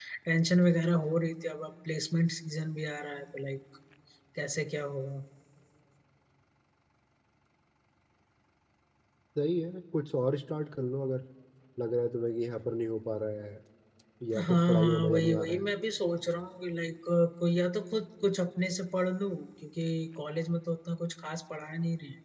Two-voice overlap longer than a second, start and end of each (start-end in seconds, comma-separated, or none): 14.3-15.6